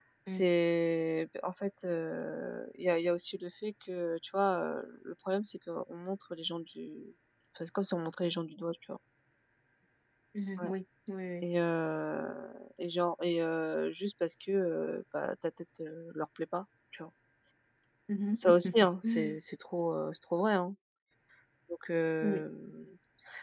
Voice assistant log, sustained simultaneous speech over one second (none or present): none